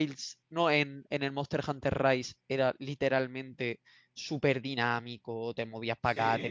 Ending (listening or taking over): listening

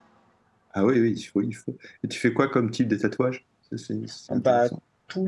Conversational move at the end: taking over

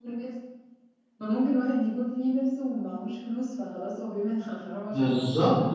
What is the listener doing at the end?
taking over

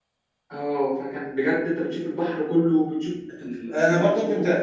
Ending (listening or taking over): taking over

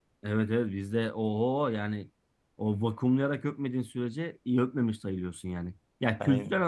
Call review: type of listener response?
listening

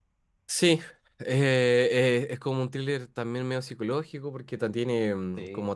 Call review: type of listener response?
listening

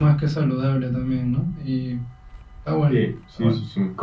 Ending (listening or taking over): taking over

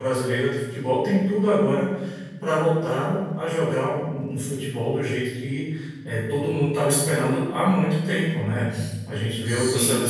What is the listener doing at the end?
listening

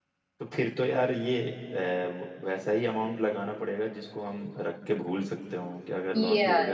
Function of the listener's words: taking over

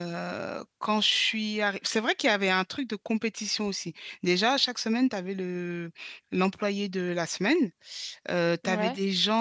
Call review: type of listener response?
listening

